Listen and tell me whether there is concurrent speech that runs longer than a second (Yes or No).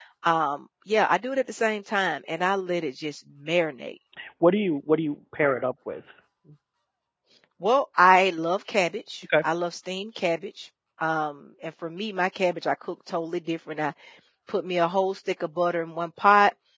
No